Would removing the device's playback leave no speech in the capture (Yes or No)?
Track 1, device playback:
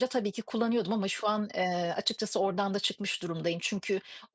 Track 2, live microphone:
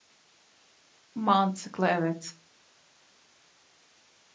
No